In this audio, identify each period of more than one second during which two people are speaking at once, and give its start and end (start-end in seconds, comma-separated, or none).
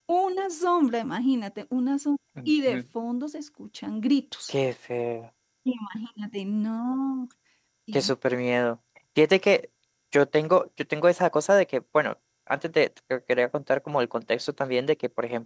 none